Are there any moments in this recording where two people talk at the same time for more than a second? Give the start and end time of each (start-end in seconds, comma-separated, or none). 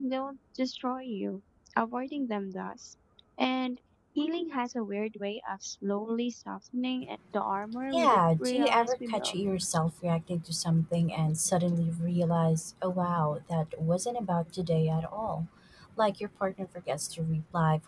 7.9-9.3